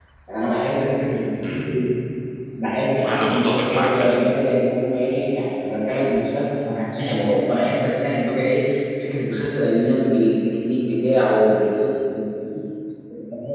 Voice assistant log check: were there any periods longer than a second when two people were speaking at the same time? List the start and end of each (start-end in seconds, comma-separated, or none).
3.0-4.2